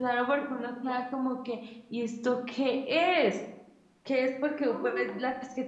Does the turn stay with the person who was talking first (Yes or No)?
Yes